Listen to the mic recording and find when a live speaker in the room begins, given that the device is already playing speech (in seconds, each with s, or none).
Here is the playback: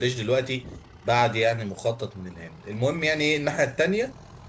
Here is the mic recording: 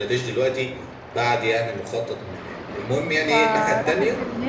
3.2 s